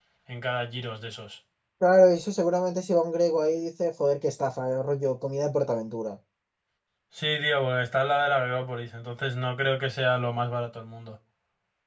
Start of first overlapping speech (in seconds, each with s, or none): none